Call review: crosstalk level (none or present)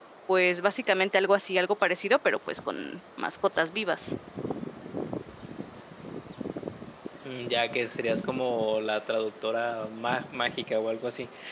none